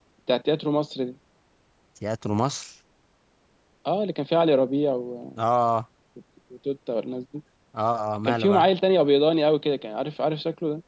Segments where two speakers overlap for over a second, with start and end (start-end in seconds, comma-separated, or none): none